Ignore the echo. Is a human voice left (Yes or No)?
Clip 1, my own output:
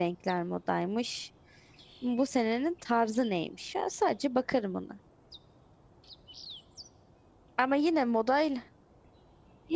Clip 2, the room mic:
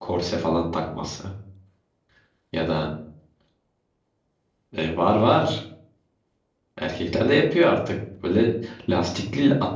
Yes